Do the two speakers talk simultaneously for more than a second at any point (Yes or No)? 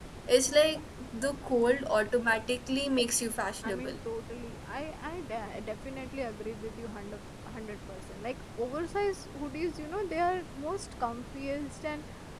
No